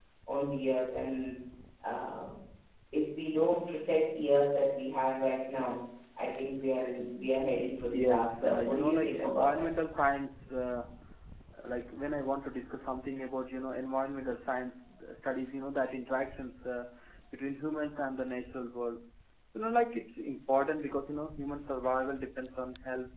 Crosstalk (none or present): present